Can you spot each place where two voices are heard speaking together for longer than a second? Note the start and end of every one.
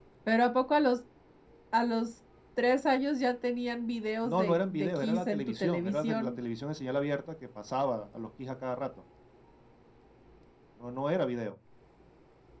4.2-6.3

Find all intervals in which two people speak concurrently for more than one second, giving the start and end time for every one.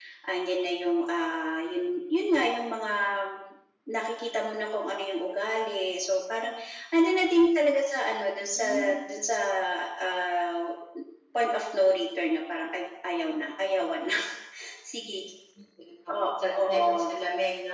none

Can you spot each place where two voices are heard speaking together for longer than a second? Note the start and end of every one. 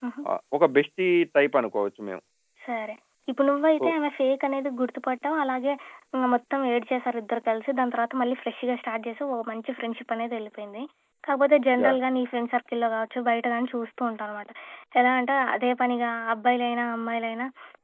none

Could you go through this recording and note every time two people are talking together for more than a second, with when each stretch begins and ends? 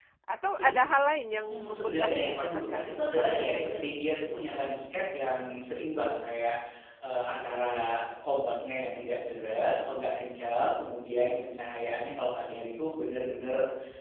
1.4-3.9

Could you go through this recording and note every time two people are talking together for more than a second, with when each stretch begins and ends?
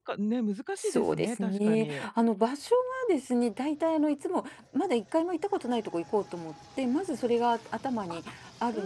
0.8-2.1

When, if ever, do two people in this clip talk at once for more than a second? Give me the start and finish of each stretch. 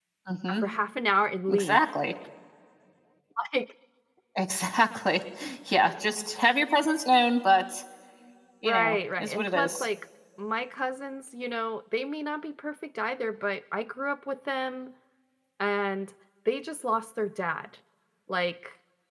8.6-9.9

